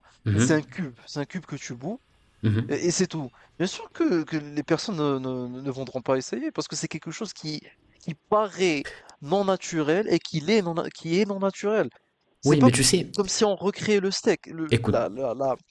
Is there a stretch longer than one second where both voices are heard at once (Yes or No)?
No